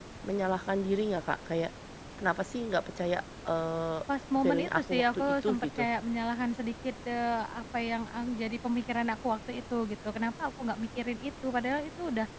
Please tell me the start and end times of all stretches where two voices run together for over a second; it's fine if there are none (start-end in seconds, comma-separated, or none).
4.4-5.8